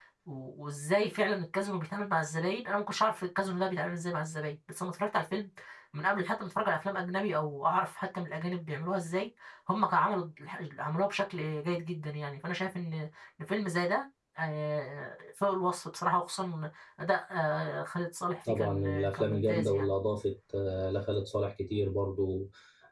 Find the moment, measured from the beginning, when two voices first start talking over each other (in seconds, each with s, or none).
18.5 s